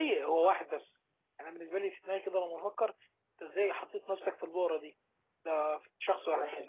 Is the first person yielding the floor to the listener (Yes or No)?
No